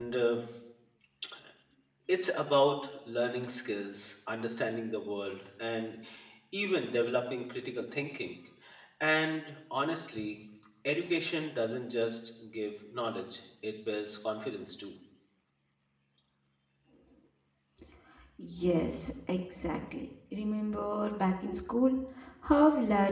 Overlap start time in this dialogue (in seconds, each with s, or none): none